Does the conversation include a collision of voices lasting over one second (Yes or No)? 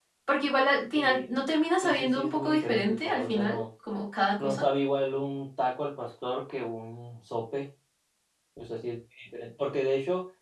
Yes